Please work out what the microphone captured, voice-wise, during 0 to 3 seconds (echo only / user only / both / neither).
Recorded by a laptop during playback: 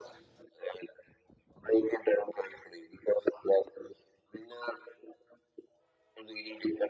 echo only